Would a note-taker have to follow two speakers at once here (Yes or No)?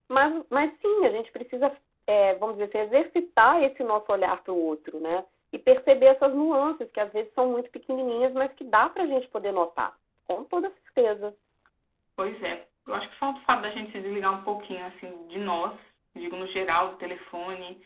No